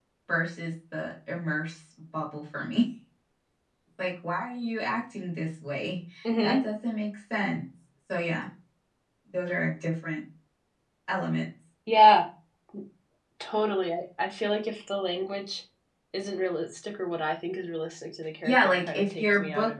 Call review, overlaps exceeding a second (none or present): present